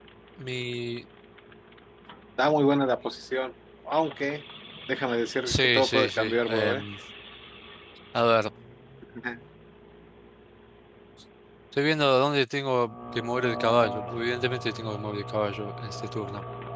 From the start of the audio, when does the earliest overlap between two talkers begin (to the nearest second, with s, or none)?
5 s